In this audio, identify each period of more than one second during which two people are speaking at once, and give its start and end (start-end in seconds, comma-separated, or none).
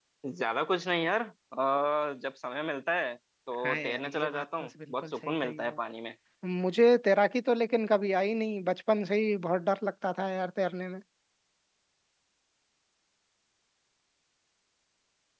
3.6-5.8